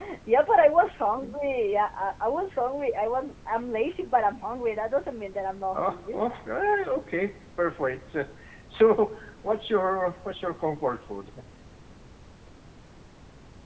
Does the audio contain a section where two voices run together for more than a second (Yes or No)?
No